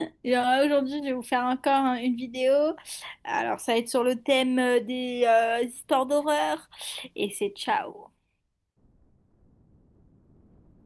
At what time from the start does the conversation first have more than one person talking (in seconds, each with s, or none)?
none